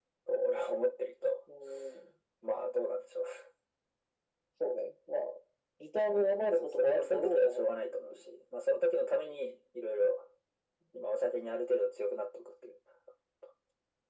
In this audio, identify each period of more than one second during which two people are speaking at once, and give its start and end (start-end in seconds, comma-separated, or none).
6.0-8.2